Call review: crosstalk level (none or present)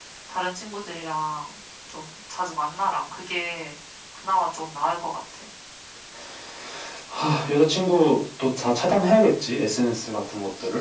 none